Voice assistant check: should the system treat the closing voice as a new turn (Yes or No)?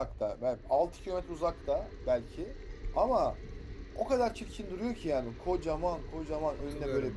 No